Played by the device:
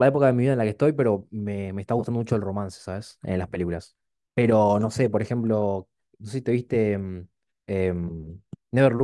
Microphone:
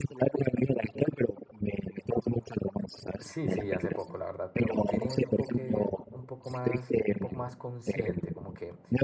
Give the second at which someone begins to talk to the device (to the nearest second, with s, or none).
3 s